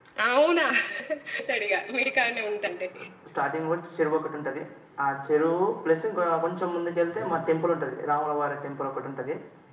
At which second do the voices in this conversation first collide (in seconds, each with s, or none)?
none